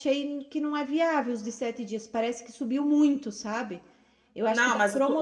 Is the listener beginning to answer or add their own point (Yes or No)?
Yes